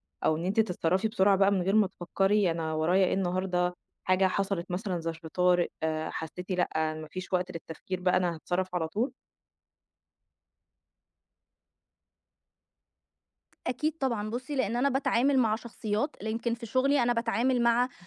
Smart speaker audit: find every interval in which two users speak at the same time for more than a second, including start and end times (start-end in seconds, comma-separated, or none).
none